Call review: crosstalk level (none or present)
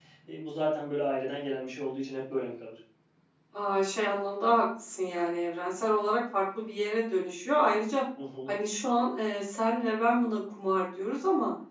none